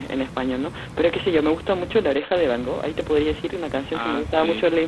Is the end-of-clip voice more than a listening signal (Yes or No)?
No